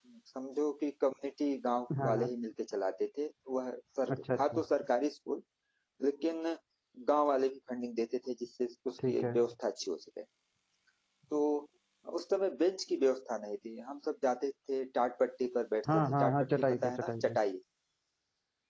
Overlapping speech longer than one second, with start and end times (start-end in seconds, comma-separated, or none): 15.9-17.4